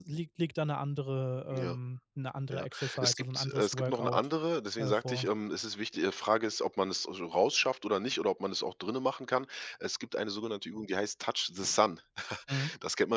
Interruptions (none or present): present